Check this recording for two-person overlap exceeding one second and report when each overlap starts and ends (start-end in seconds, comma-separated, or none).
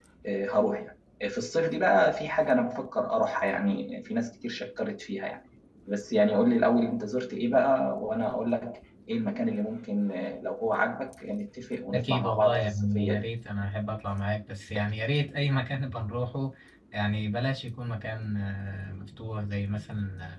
11.9-13.3